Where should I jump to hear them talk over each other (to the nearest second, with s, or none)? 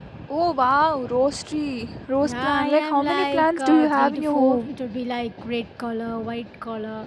2 s